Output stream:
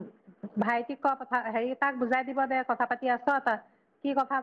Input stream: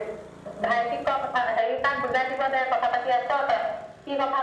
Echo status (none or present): present